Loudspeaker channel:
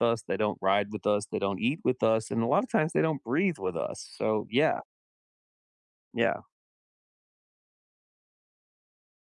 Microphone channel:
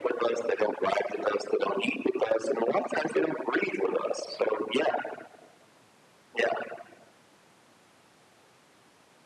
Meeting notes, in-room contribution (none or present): none